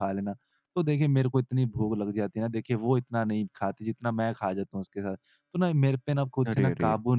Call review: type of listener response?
listening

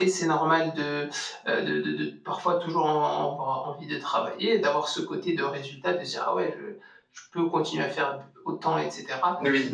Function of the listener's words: listening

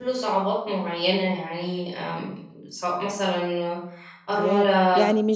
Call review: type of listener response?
taking over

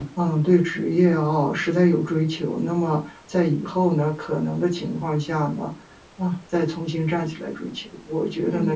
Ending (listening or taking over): listening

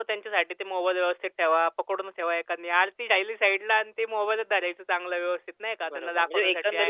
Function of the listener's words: taking over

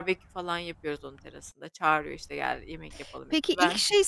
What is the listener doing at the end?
taking over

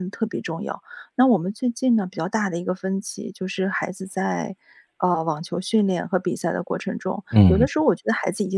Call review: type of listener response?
listening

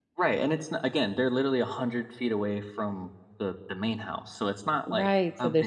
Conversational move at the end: taking over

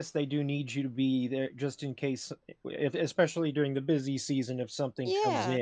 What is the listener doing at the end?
taking over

